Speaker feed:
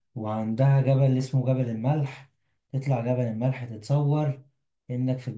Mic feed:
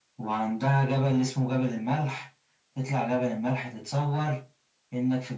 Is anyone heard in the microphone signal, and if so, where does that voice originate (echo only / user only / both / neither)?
echo only